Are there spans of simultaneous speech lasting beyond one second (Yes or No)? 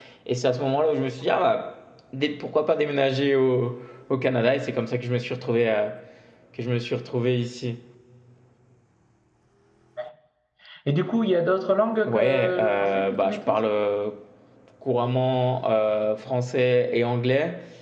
Yes